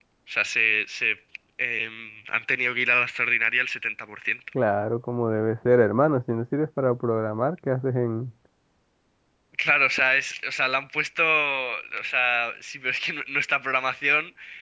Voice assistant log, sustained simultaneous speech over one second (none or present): none